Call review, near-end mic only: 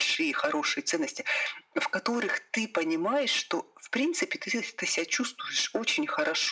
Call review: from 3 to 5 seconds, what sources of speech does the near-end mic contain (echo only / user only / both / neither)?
echo only